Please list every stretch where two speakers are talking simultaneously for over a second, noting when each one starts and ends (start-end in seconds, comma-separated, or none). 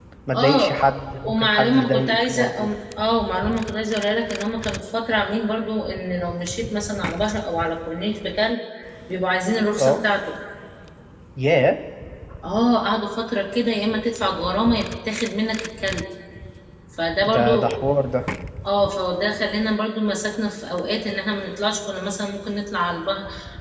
1.2-2.7